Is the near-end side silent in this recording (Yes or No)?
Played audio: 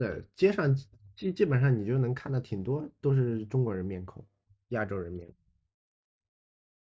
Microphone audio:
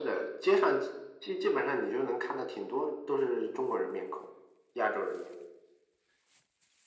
Yes